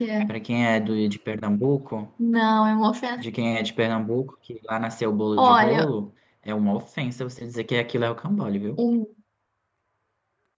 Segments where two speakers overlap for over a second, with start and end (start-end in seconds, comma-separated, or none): none